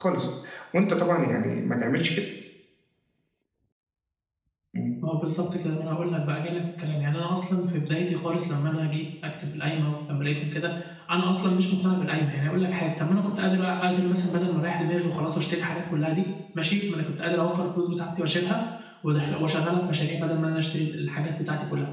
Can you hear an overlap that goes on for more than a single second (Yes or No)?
No